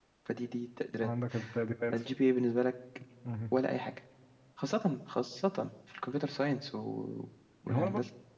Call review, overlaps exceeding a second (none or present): none